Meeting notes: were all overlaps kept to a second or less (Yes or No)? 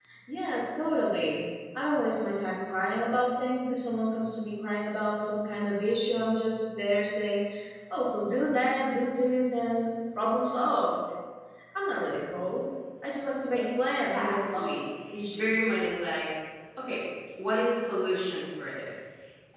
No